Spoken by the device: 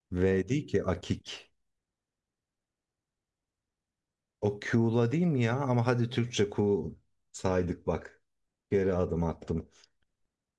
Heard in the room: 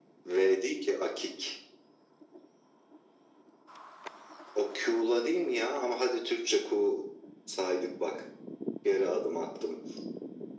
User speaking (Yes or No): No